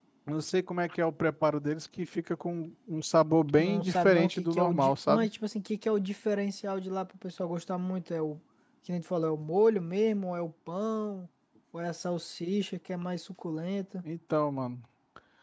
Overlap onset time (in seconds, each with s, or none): 3.6 s